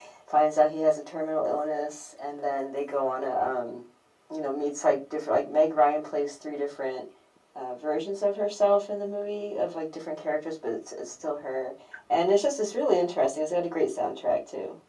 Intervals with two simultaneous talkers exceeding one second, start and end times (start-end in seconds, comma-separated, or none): none